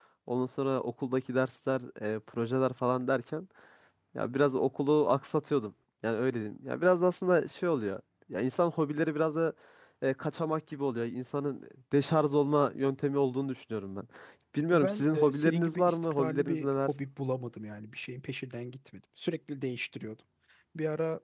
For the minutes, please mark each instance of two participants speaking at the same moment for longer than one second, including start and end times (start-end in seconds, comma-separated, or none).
14.7-16.9